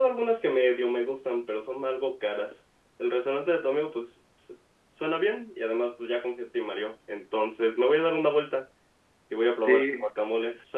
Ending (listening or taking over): listening